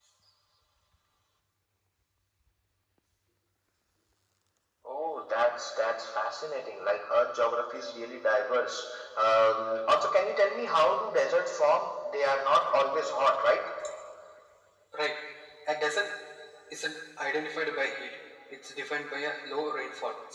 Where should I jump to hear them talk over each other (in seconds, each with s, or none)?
none